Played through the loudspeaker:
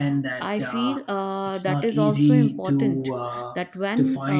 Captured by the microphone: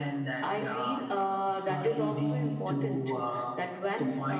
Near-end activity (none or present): none